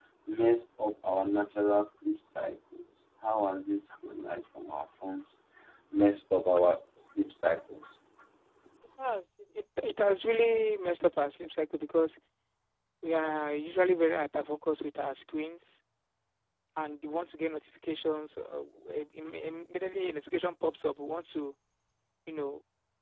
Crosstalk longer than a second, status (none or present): none